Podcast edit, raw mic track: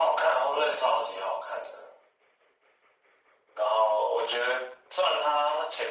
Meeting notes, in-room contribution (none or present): none